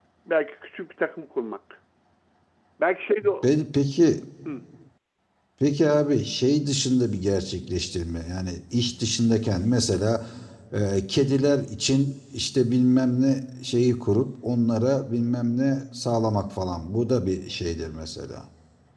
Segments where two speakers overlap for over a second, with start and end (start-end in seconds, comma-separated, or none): none